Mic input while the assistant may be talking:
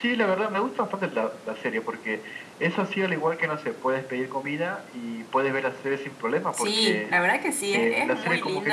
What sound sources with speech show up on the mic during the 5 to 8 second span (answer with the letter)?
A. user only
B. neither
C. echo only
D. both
D